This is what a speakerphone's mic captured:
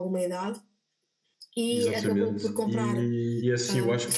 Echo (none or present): present